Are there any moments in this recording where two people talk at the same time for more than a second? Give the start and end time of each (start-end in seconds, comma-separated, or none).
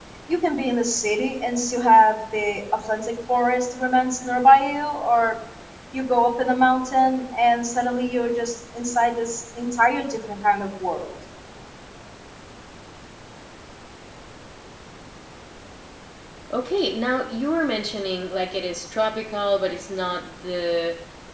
none